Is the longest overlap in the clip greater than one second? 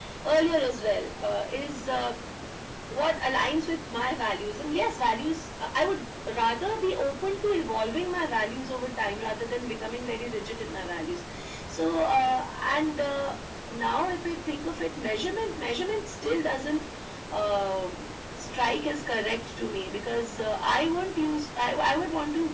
No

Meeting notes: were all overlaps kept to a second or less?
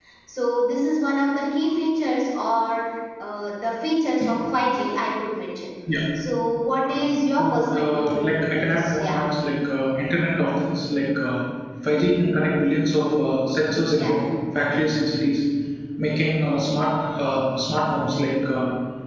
No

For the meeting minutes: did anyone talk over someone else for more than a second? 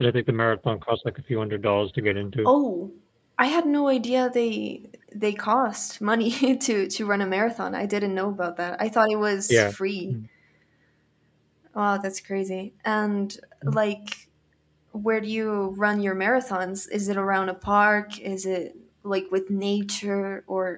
No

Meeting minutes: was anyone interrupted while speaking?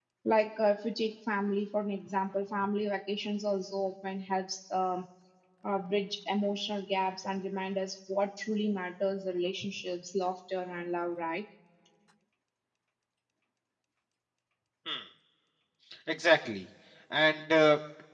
No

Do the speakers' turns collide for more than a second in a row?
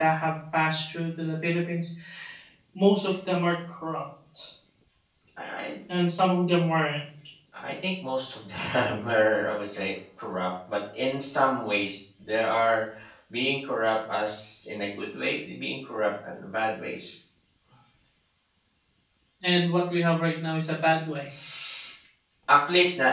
No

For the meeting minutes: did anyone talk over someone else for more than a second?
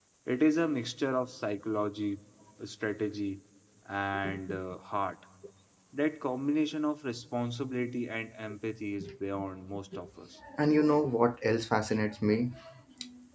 No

